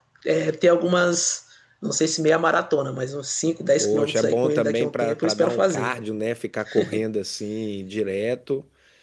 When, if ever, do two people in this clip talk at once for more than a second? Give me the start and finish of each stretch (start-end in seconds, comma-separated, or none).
3.8-6.0